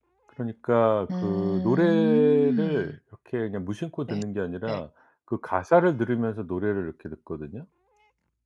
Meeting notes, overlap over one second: present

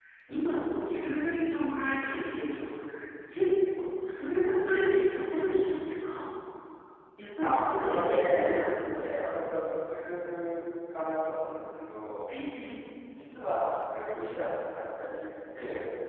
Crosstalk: present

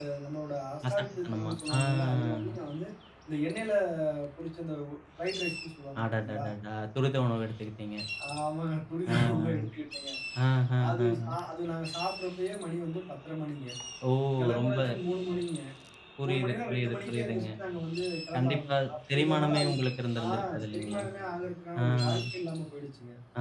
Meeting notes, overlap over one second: present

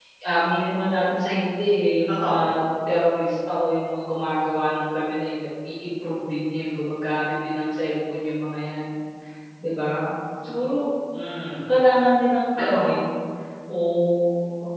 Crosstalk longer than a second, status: none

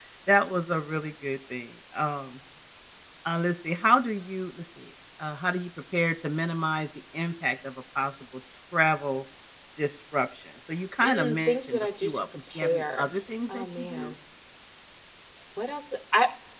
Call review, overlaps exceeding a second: present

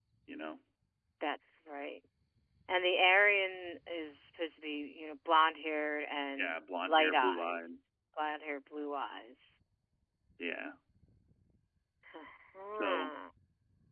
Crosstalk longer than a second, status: present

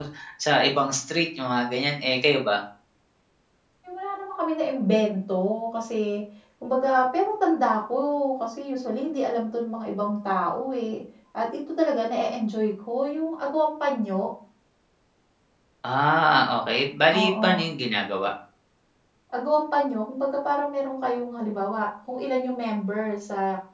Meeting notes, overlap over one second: none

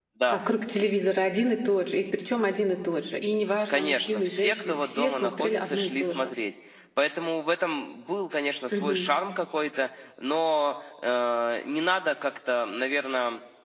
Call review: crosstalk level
present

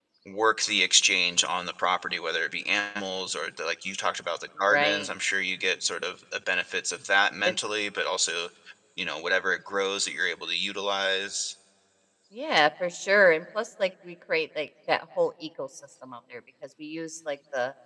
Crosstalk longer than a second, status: none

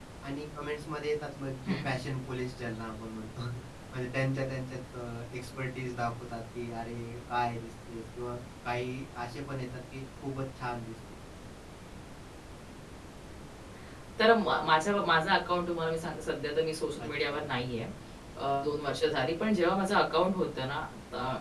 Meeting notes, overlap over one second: none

